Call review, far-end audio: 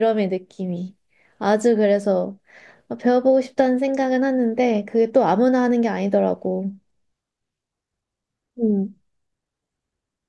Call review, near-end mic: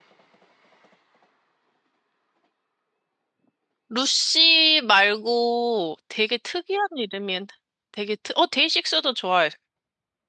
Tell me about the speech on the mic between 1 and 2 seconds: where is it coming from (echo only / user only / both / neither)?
neither